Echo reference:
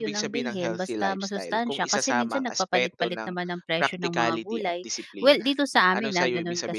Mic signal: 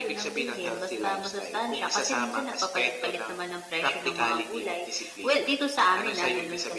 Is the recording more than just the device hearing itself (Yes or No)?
No